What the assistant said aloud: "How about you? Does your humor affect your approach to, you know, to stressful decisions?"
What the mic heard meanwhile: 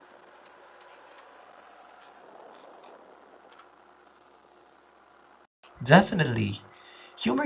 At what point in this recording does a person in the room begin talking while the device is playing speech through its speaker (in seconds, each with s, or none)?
5.8 s